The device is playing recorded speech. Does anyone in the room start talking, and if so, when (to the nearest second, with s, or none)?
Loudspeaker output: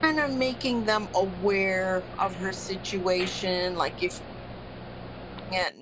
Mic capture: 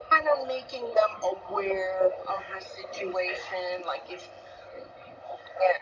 none